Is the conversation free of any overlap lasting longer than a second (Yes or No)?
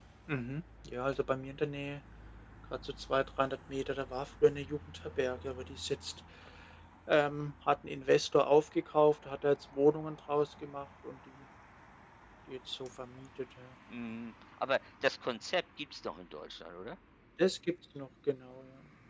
Yes